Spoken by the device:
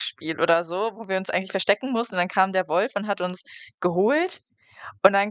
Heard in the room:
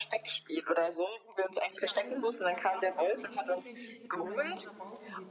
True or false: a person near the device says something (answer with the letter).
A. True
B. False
A